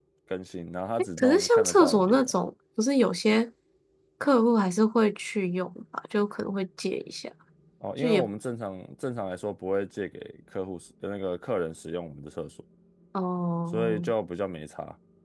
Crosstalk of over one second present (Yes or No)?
Yes